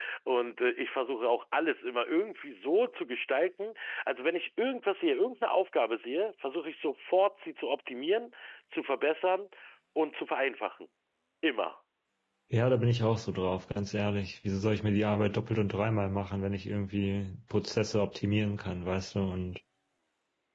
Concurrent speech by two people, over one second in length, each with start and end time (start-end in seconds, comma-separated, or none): none